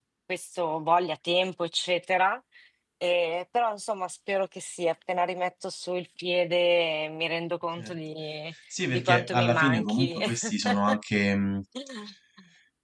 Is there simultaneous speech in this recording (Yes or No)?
Yes